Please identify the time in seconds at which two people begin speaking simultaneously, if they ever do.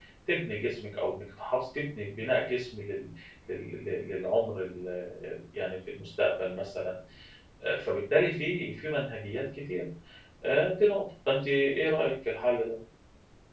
none

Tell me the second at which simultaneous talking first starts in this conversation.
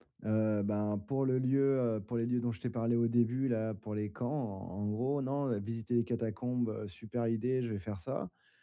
none

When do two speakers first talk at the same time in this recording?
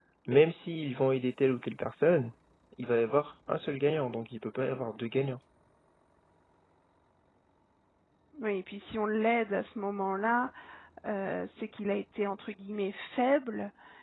none

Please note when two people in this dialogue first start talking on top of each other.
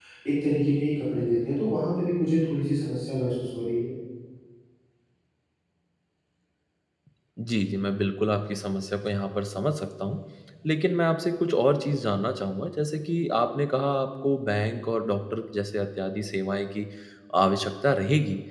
none

